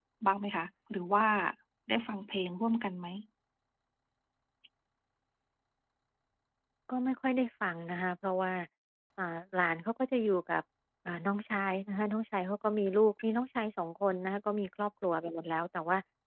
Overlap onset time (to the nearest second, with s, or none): none